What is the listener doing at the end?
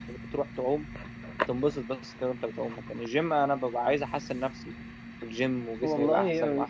taking over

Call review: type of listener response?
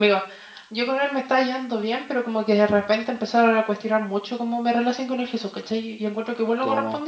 listening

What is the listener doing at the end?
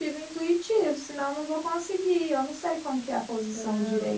taking over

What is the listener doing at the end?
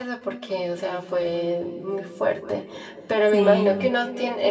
listening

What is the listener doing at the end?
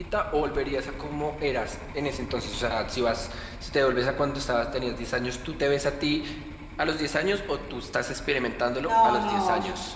taking over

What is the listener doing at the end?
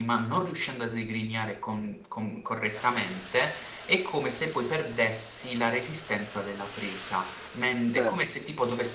listening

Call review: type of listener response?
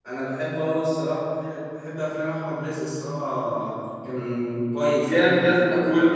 taking over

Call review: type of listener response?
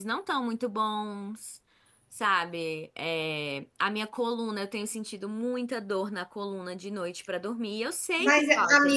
taking over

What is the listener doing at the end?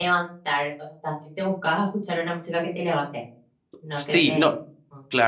taking over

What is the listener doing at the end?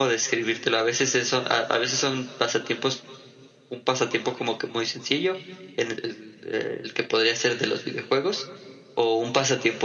listening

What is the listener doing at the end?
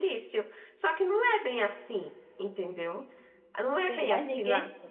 taking over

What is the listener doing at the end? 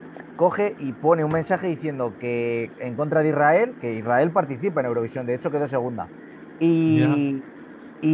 listening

